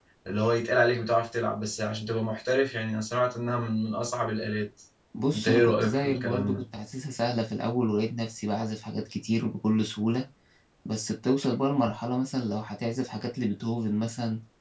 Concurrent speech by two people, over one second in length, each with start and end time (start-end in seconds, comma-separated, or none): 5.3-6.6